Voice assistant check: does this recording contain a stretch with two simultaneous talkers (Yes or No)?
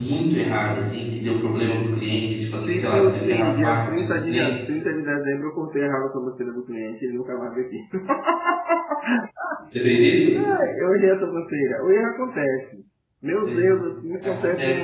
Yes